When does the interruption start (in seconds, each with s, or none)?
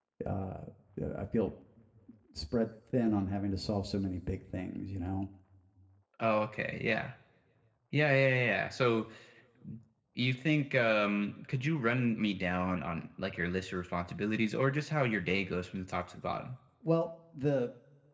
none